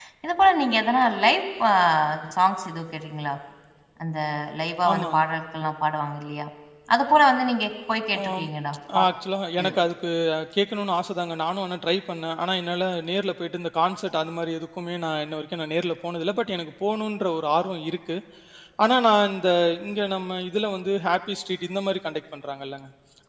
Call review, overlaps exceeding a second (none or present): none